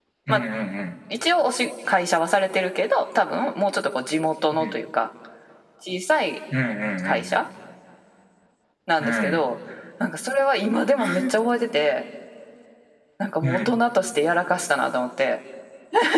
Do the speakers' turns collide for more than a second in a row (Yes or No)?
No